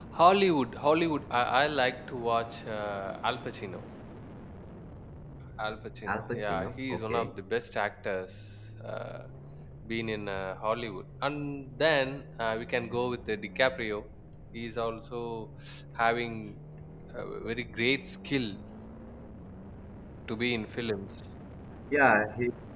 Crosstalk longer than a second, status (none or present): present